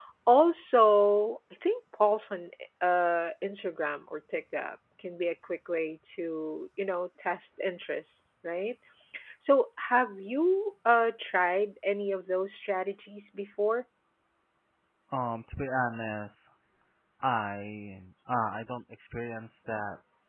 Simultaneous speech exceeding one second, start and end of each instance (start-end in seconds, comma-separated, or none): none